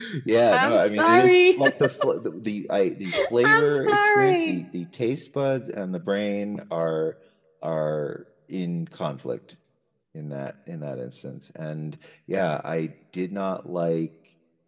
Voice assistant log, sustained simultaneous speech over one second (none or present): present